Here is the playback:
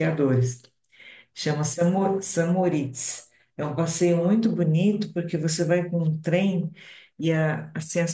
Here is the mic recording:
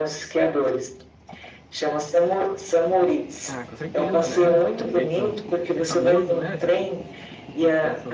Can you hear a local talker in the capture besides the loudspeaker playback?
Yes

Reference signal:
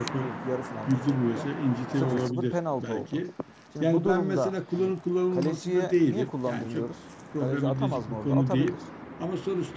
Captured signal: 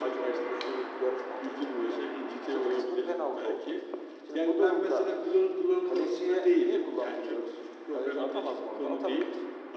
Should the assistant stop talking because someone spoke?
No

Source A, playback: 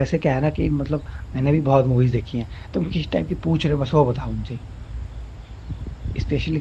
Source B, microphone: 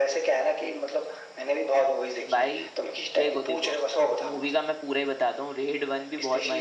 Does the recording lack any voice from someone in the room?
No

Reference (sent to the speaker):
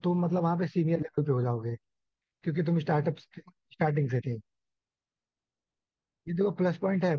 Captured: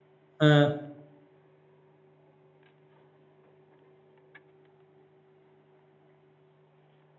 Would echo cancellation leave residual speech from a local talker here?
Yes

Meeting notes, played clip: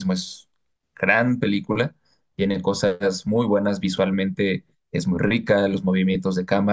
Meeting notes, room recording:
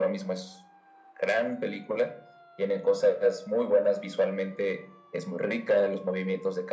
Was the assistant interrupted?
No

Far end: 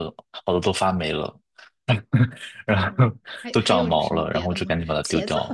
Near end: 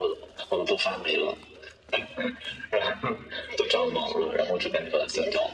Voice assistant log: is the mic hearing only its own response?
Yes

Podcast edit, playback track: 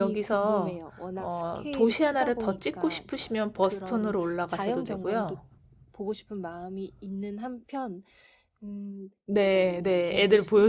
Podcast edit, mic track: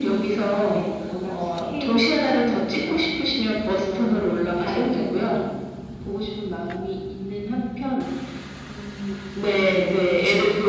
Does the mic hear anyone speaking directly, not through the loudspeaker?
No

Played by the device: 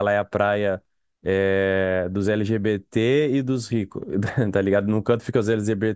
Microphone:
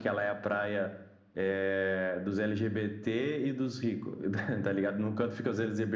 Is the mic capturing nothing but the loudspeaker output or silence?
Yes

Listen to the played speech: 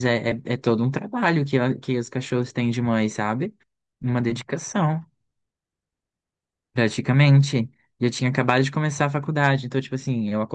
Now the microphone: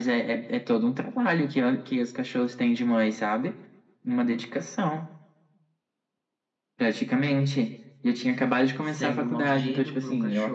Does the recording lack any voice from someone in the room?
No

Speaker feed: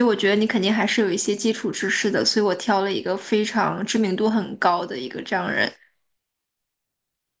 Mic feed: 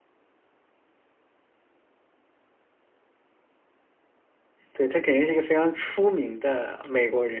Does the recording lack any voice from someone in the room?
No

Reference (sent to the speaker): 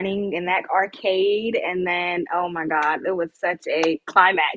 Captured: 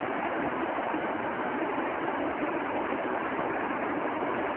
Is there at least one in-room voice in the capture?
No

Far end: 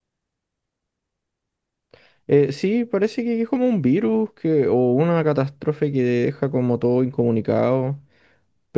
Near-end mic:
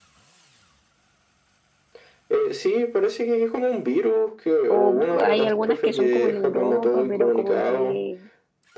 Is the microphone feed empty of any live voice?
No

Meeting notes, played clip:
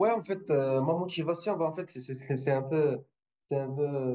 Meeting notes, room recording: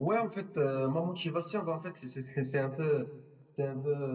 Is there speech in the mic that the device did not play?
No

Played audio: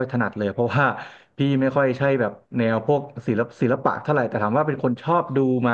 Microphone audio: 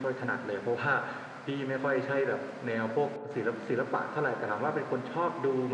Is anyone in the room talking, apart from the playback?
No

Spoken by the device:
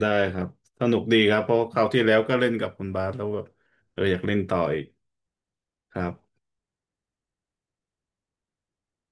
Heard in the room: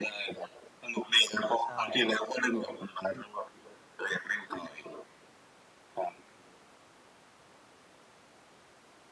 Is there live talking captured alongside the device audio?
Yes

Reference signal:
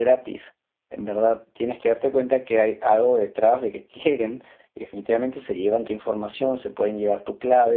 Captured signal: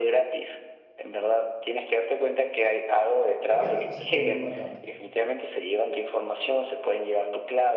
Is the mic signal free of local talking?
No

